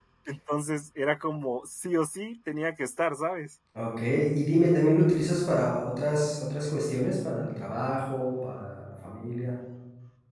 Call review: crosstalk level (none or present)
none